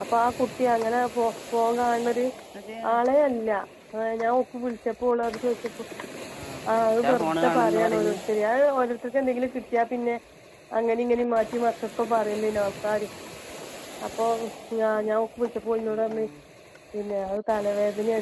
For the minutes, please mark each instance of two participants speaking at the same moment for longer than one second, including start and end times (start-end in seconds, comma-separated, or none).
6.8-8.1